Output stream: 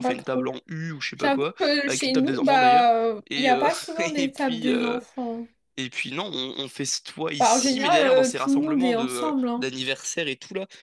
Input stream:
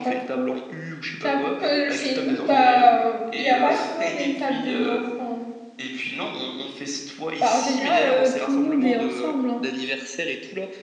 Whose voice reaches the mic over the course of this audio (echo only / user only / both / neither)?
echo only